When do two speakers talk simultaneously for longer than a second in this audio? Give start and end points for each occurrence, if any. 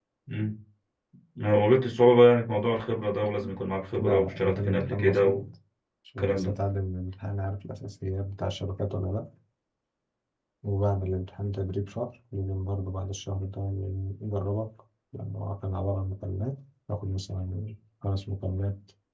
4.0-5.2

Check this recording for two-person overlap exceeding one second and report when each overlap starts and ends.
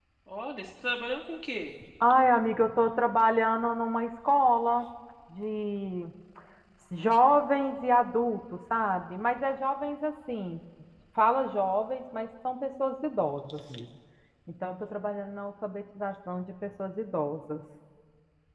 none

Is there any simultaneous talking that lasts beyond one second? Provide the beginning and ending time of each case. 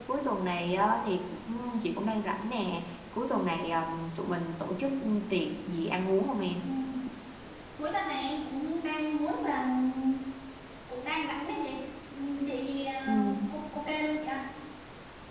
none

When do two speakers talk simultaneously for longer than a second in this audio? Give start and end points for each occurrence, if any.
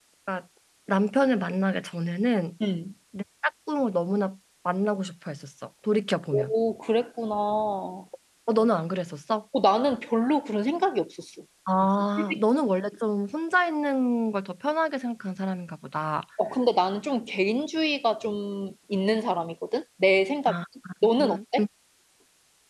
none

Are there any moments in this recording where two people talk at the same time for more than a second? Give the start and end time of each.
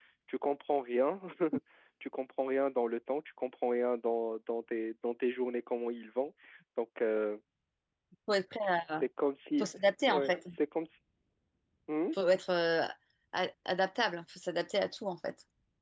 none

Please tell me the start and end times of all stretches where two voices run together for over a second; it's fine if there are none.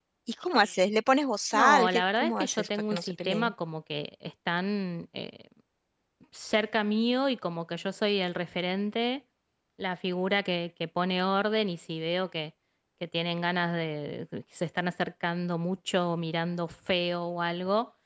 1.5-3.5

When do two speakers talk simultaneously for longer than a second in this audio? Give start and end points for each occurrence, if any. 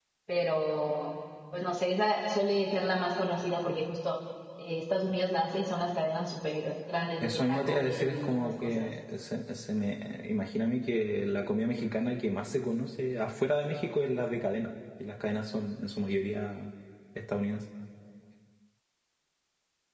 7.2-8.9

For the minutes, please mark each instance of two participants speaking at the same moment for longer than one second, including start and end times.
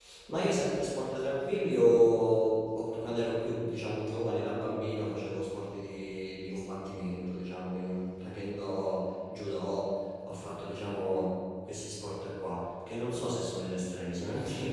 none

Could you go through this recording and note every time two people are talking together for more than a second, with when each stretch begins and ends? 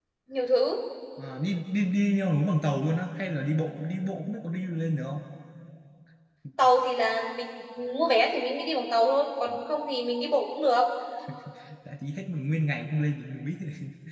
none

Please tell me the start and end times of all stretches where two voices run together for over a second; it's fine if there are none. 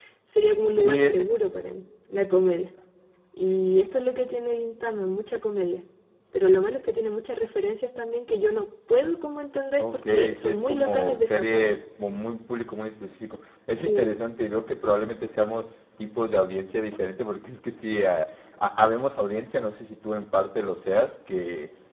9.8-11.7

